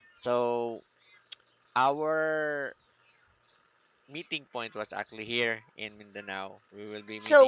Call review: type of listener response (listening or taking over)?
taking over